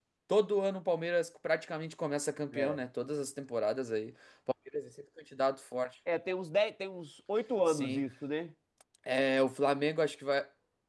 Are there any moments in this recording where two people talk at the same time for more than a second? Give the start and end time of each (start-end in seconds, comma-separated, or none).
none